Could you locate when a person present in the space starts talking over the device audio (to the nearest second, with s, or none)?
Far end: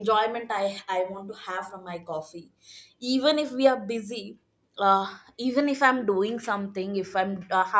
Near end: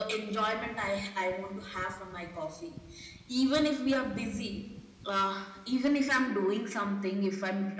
none